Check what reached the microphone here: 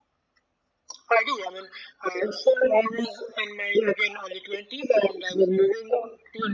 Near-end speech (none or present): none